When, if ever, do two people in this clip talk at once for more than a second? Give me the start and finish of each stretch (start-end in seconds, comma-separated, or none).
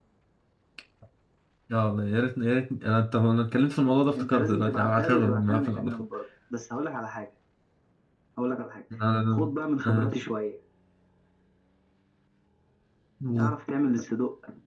4.2-6.0